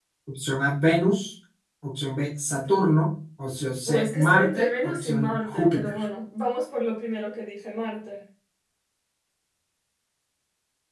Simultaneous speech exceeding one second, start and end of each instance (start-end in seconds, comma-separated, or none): 3.9-6.0